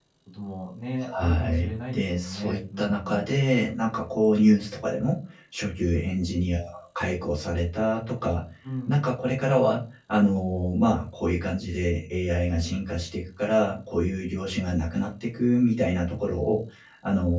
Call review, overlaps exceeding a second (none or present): present